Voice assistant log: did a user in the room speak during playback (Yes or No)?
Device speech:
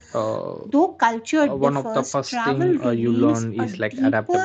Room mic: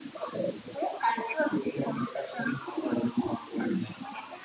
No